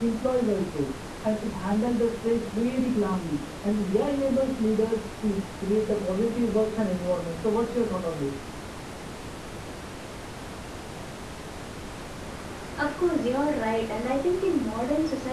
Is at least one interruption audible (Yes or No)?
No